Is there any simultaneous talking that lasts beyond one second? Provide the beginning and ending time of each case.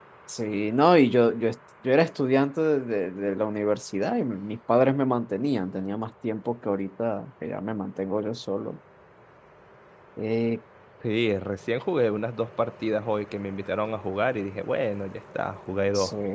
none

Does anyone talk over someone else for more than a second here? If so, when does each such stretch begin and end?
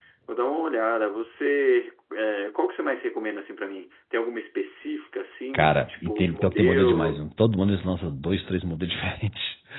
5.5-7.2

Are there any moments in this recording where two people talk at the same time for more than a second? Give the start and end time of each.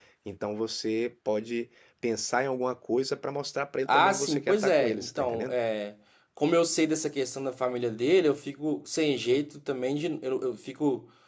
3.9-5.5

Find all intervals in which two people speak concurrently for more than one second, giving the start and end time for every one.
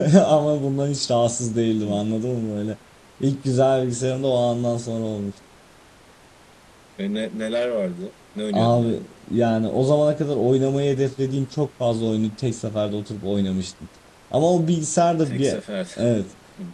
none

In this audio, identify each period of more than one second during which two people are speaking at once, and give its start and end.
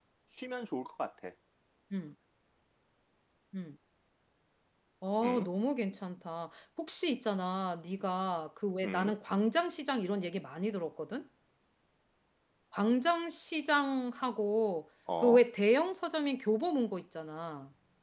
none

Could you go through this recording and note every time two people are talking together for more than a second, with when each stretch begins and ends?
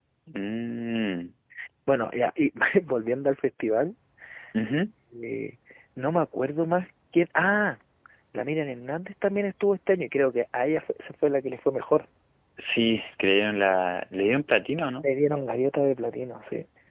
none

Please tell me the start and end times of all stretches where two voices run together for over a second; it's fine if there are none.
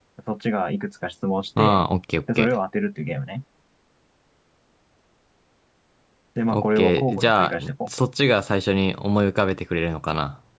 6.5-7.9

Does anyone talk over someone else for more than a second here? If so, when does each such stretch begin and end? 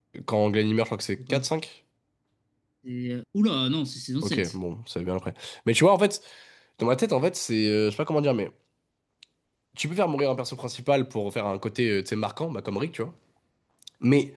none

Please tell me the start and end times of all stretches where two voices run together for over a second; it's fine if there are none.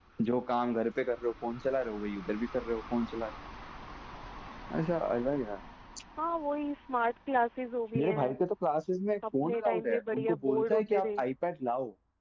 9.4-11.2

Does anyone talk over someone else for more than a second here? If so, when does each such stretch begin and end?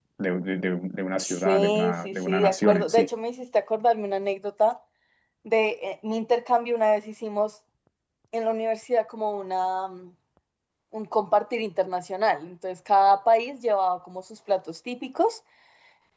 1.2-3.1

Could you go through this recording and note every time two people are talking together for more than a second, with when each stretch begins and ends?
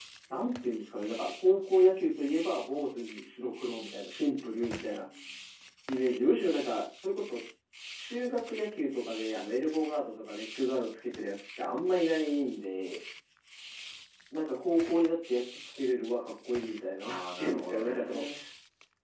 17.0-18.2

